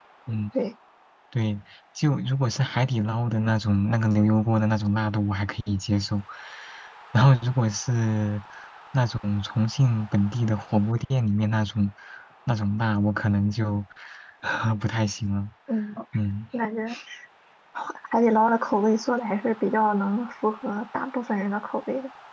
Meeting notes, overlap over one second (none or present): none